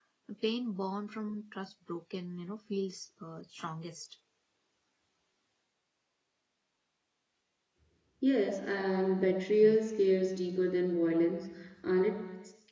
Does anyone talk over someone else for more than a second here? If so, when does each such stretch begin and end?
none

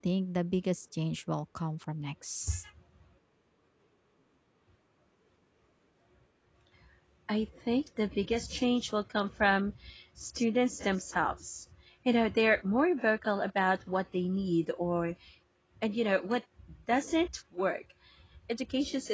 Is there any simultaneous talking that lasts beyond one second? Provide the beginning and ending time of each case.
none

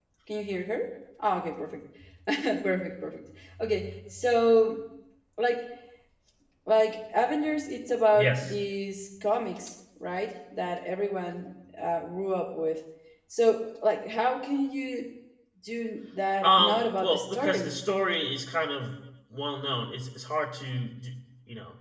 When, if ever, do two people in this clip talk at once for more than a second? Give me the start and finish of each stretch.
16.4-17.8

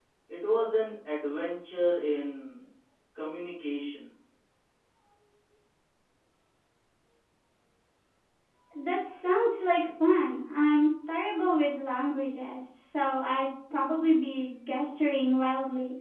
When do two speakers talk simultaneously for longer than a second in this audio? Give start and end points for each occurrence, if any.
none

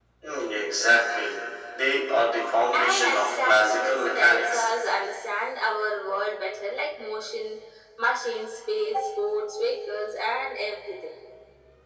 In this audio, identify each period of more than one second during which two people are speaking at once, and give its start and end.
2.7-4.7

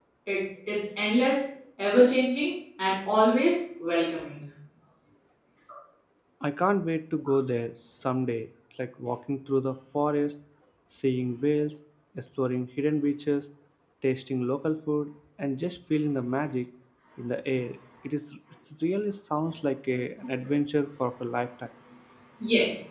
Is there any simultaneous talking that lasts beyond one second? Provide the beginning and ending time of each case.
none

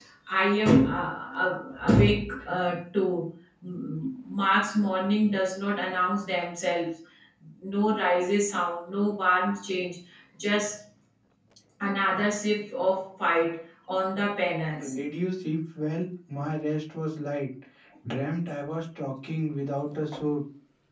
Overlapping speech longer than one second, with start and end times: none

